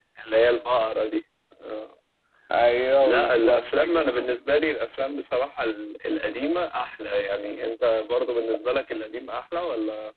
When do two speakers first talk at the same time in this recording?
3.0 s

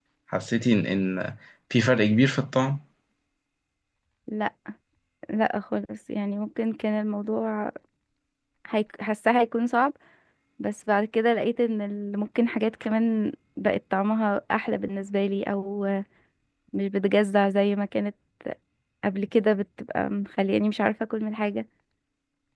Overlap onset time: none

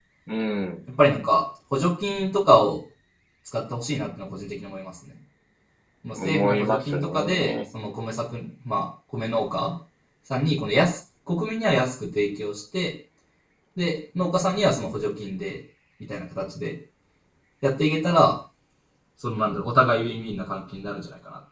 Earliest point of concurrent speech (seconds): 6.2 s

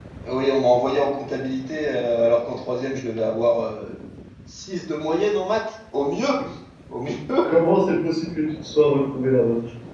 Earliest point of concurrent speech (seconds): none

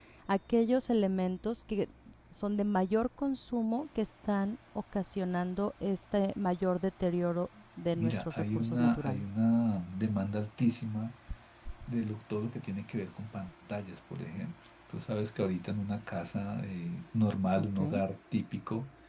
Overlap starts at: 7.9 s

